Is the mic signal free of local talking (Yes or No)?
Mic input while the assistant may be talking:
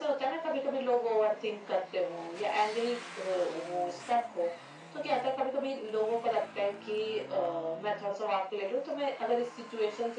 Yes